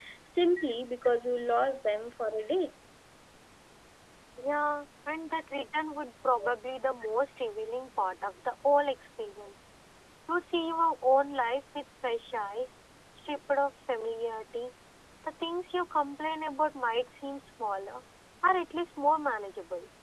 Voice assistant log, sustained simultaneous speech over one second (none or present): none